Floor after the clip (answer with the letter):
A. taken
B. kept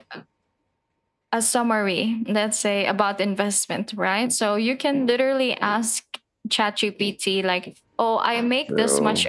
B